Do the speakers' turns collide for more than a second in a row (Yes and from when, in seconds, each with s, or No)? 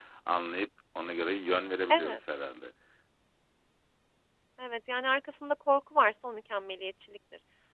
No